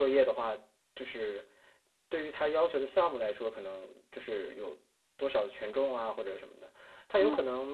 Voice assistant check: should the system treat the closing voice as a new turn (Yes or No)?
No